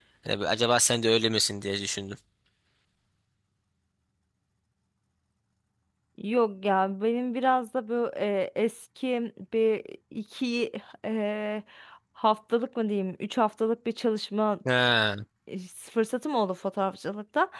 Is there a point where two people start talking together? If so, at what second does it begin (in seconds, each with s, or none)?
none